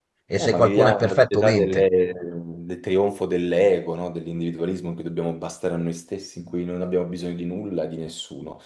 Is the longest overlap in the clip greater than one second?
Yes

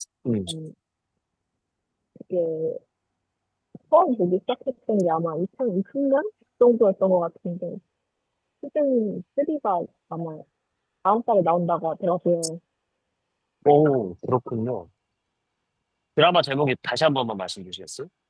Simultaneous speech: No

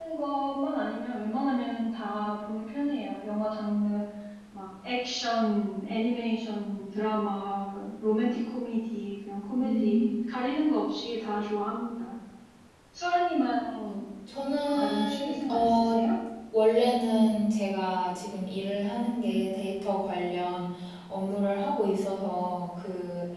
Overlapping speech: Yes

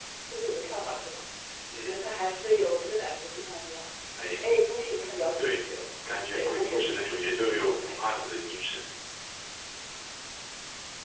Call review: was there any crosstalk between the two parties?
Yes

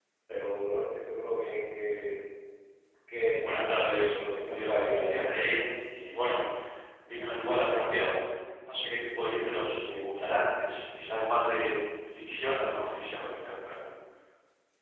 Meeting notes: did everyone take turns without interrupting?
No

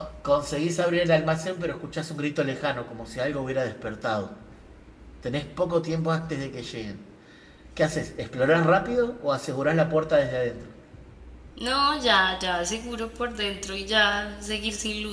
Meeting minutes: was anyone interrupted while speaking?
No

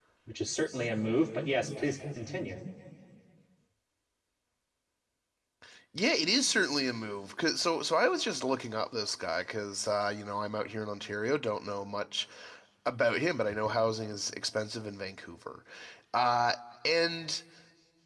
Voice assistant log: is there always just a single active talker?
Yes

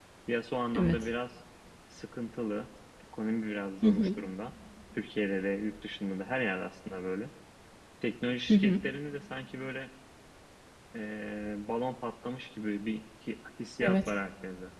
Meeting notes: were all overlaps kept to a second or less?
Yes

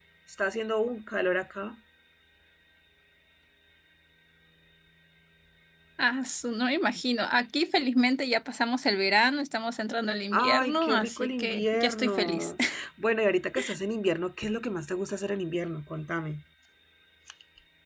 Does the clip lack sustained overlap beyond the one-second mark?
No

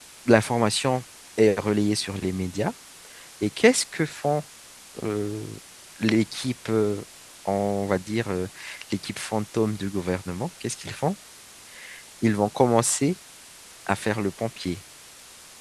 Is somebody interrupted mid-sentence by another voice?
No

